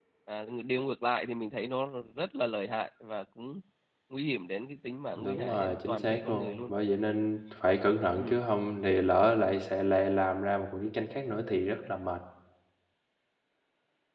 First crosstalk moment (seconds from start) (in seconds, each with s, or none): 5.2 s